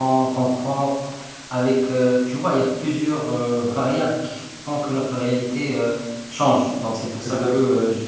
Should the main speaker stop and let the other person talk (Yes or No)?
No